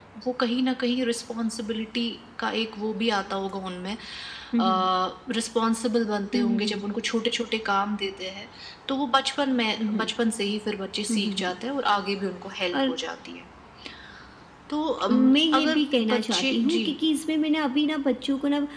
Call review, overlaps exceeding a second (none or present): present